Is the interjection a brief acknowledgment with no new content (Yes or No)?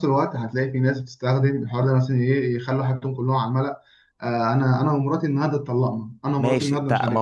No